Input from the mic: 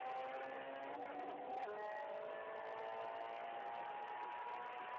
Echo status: none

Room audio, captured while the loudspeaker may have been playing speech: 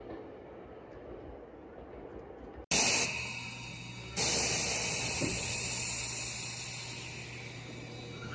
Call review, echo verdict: none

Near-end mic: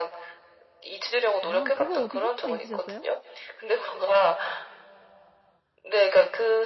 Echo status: present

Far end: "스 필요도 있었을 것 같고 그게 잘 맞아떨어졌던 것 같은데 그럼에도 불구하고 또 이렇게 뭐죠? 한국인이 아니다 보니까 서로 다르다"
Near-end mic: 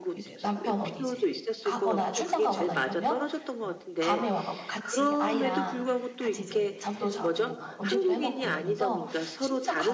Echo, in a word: present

